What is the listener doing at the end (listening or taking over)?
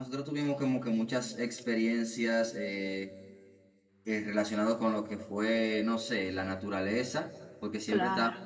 listening